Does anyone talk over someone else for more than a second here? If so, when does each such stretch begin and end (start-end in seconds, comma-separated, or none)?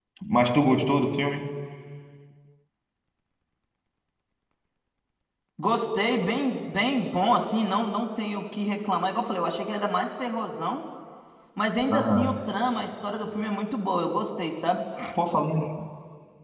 none